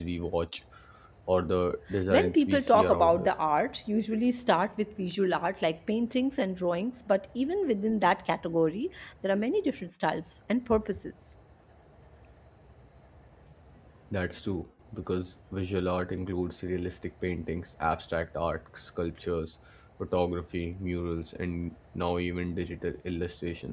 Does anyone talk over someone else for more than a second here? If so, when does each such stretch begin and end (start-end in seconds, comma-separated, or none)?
2.1-3.3